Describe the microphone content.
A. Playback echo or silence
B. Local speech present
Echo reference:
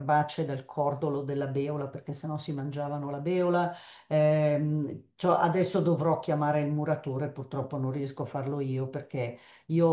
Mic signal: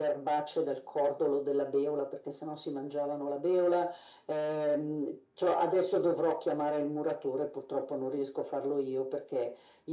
A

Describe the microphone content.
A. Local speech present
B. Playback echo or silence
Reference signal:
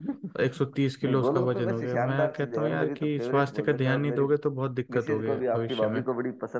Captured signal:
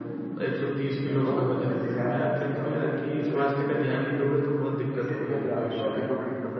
B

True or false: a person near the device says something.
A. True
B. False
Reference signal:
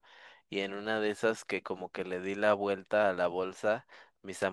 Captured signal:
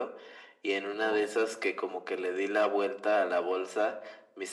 A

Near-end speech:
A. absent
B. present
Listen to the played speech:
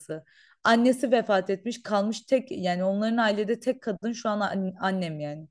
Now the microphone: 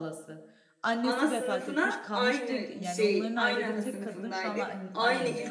B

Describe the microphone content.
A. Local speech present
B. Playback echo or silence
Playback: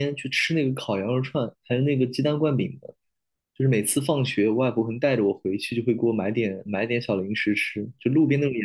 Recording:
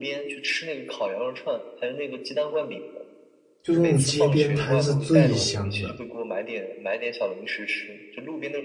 A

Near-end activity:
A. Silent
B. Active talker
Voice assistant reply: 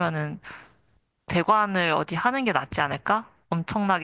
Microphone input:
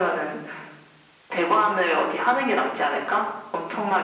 A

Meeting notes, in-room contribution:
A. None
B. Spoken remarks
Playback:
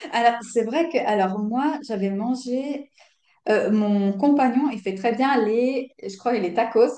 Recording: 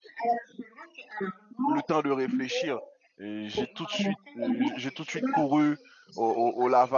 B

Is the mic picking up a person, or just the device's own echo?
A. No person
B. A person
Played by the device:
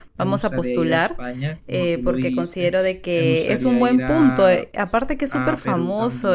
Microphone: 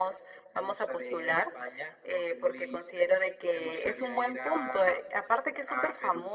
A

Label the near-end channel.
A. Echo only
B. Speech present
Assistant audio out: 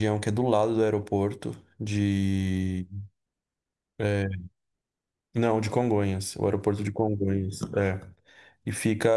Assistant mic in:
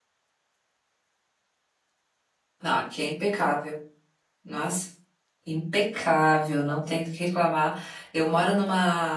B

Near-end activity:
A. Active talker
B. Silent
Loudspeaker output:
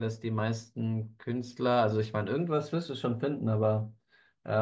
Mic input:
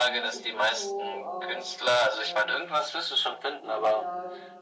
A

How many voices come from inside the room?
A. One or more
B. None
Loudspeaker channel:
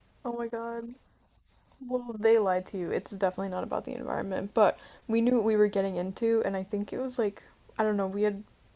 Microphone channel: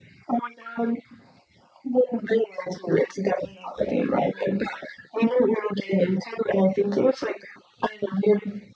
B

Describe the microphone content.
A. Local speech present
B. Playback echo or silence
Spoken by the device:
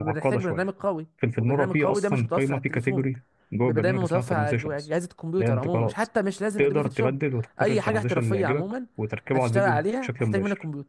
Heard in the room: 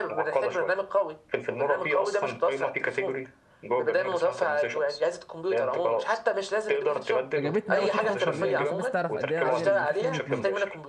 A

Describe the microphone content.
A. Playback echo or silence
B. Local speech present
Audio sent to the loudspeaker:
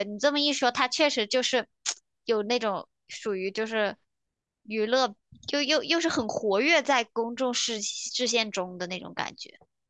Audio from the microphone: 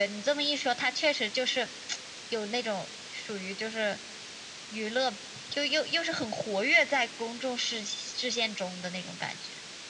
A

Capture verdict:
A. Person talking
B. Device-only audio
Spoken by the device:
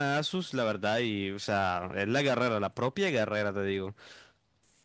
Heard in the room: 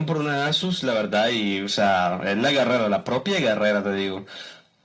B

